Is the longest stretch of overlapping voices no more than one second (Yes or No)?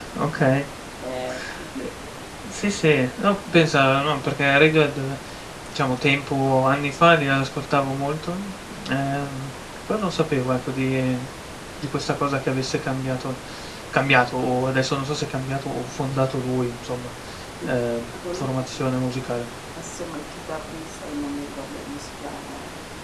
Yes